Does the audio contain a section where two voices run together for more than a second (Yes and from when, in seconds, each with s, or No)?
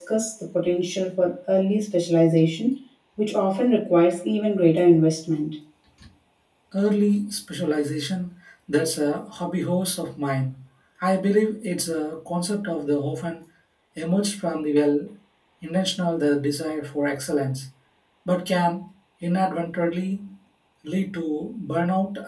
No